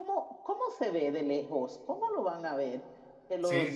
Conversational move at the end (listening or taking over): listening